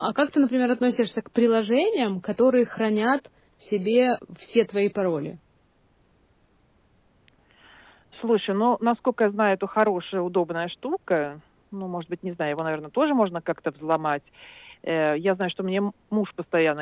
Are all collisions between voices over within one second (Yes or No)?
Yes